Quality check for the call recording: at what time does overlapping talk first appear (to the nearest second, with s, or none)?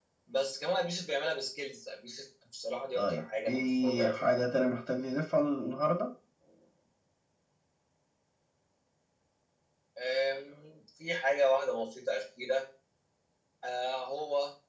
3 s